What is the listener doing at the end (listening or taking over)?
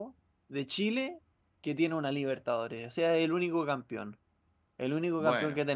listening